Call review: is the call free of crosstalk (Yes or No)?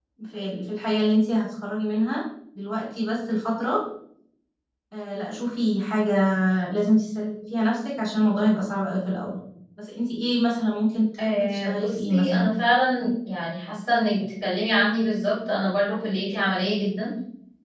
No